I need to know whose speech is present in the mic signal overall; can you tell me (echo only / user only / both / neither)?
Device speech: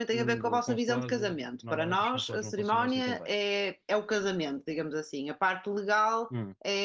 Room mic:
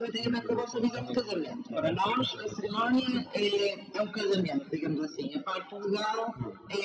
echo only